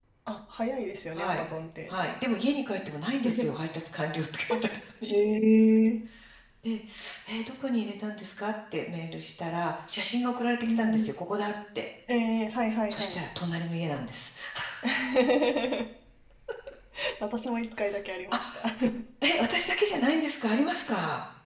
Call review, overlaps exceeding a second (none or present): none